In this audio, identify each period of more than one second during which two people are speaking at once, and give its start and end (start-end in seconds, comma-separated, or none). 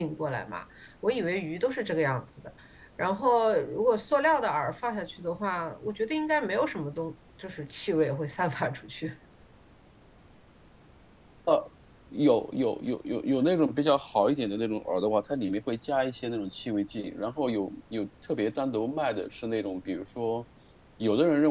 none